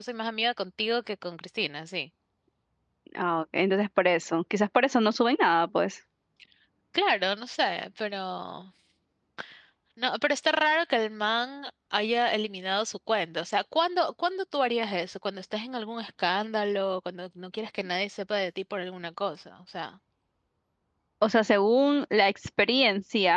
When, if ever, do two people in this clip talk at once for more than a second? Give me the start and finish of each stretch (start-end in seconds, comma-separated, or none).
none